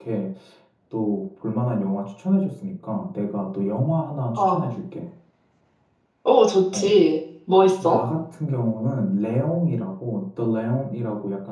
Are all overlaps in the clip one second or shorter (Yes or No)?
Yes